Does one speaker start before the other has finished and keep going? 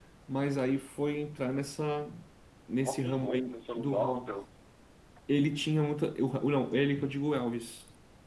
Yes, from 2.8 s

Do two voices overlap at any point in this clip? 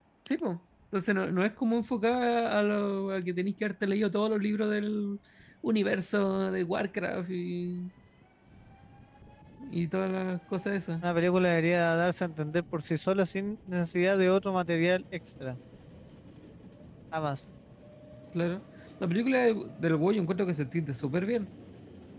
No

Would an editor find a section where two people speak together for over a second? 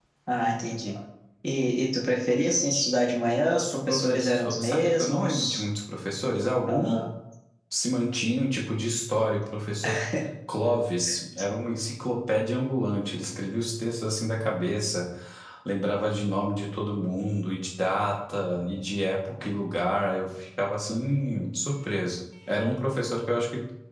Yes, from 3.6 s

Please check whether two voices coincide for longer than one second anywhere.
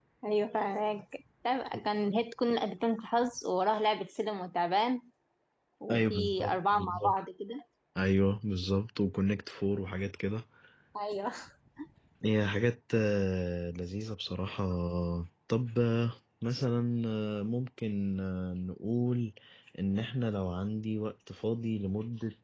Yes, from 5.9 s

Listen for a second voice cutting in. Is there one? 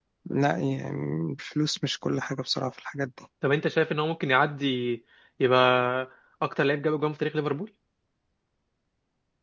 No

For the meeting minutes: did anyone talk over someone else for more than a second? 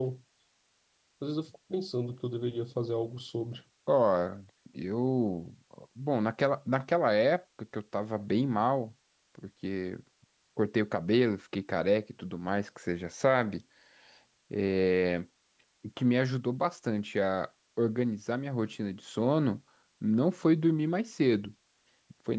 No

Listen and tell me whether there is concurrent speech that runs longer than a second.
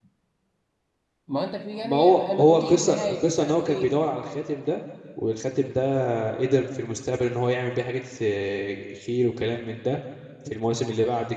Yes, from 1.8 s

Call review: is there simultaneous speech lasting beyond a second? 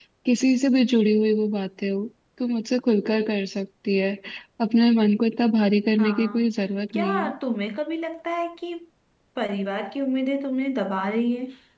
No

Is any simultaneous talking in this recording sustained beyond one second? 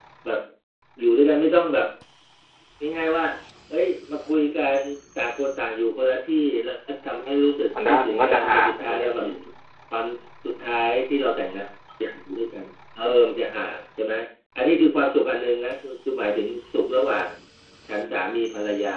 Yes, from 7.7 s

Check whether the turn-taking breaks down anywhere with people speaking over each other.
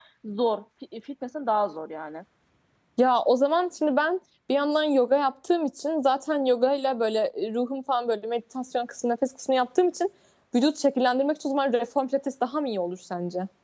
No

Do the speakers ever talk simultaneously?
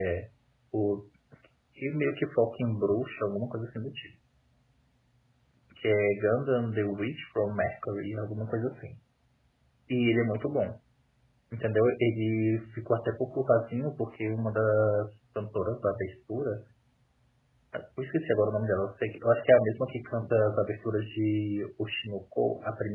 No

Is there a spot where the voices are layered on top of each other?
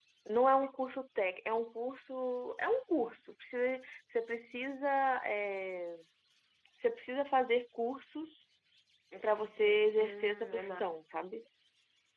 Yes, from 9.2 s

